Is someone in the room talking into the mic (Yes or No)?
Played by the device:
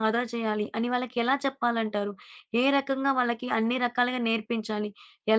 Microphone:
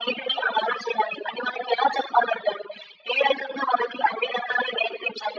No